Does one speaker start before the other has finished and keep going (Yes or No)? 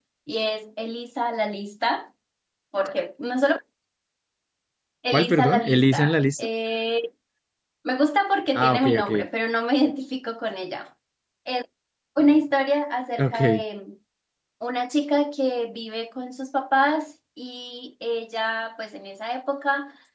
Yes